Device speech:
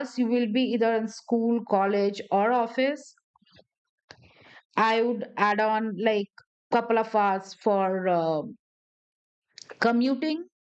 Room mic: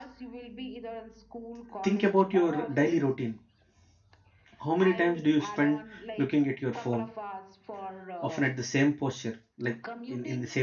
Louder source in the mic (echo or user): user